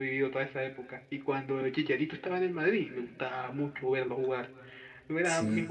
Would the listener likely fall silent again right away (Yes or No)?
Yes